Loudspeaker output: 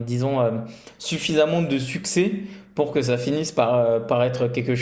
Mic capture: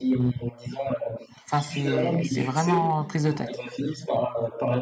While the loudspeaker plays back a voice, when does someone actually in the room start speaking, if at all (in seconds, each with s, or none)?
1.4 s